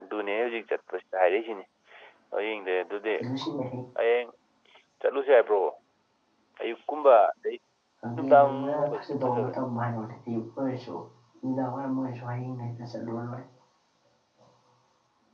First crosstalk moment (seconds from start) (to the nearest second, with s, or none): 8 s